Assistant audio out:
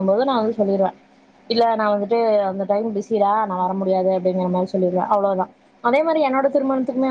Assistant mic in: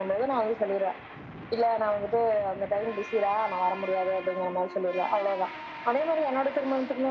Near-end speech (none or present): none